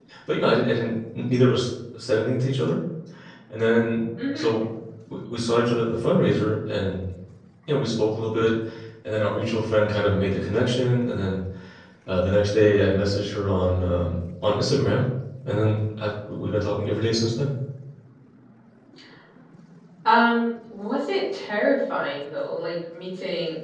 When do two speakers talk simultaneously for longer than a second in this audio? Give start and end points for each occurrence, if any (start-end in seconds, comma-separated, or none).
none